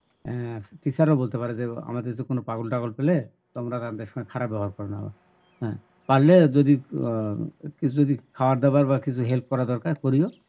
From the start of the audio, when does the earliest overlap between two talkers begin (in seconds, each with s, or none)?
none